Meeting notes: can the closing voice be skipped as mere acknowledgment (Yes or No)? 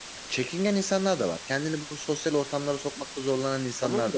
No